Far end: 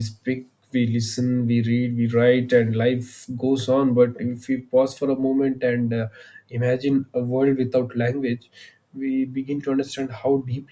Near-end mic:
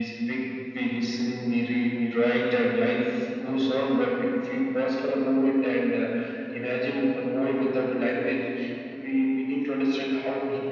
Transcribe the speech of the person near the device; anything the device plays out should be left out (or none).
none